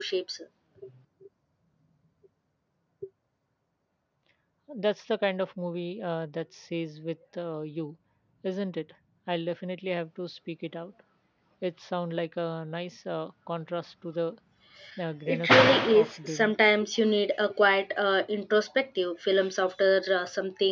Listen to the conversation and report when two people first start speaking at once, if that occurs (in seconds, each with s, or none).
15.3 s